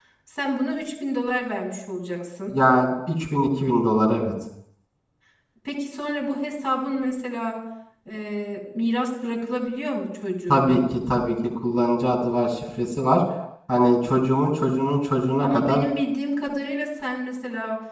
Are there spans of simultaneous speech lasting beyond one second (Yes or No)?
No